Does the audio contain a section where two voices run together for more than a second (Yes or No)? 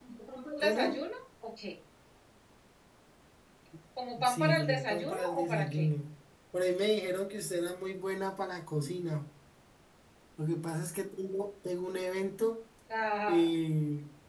Yes